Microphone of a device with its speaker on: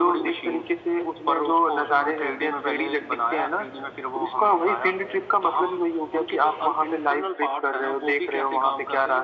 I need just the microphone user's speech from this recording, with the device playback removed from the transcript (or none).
none